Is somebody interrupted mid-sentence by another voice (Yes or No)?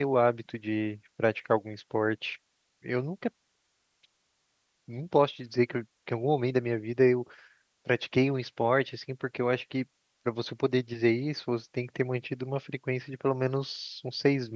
No